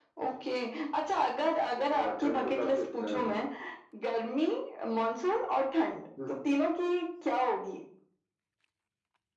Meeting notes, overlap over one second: present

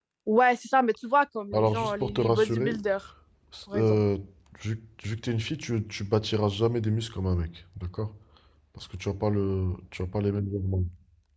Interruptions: present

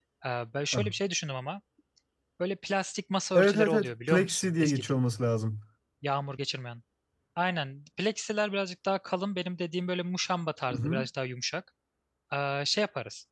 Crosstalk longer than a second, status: present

